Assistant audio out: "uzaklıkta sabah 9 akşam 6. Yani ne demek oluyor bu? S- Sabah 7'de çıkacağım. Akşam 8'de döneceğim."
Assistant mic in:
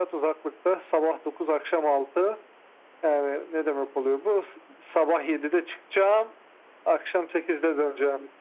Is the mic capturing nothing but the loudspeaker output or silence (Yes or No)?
Yes